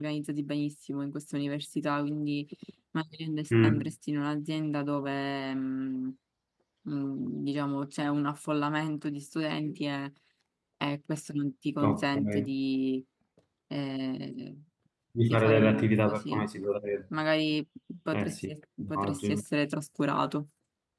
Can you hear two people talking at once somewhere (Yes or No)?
Yes